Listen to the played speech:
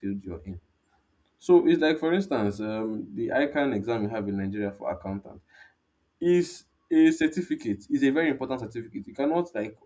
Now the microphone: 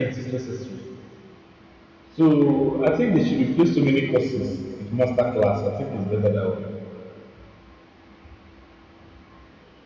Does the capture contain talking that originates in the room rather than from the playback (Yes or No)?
Yes